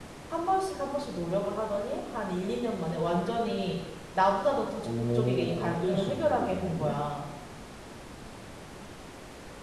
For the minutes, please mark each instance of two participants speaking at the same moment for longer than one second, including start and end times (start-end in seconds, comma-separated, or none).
4.8-6.9